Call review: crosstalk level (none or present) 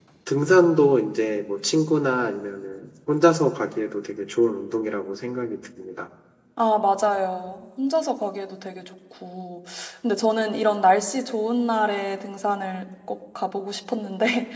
none